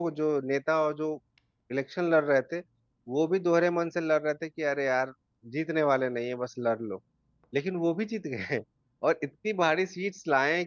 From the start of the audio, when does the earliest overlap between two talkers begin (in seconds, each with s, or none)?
none